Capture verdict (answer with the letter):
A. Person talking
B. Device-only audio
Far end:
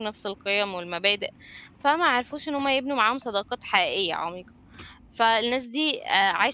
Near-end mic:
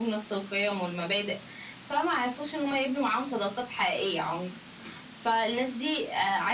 B